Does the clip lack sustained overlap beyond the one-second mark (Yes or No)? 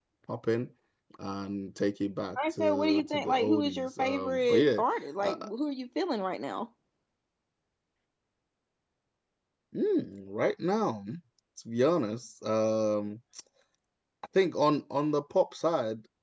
No